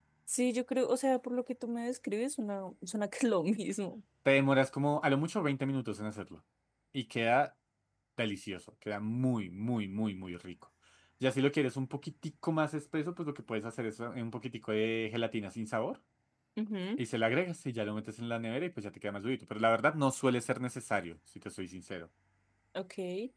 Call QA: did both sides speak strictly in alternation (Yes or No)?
Yes